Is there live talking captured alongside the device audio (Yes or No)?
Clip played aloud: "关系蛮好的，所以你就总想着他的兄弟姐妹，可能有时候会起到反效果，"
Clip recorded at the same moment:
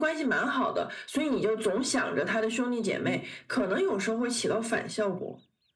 Yes